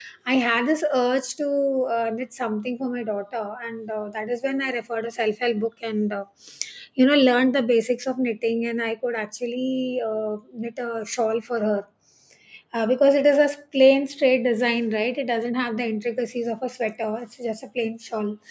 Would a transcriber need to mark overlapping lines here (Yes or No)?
No